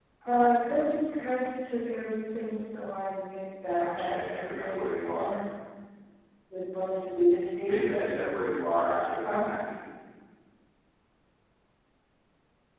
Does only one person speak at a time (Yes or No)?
No